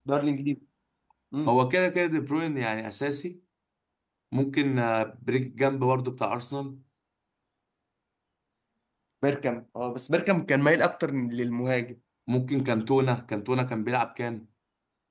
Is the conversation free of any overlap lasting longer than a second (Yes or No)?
Yes